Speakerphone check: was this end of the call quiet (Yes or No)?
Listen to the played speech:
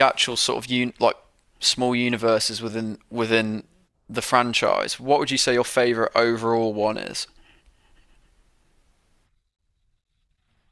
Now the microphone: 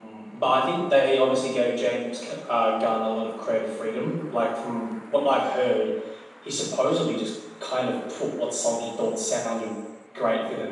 No